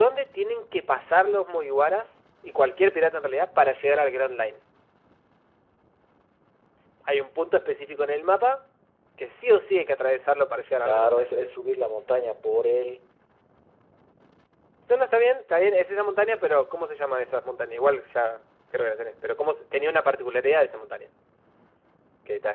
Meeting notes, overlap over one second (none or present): none